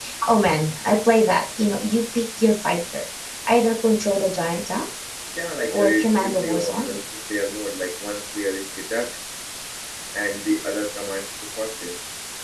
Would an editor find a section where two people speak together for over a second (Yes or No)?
Yes